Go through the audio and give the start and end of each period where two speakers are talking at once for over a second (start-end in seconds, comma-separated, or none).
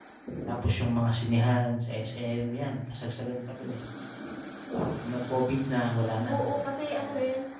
none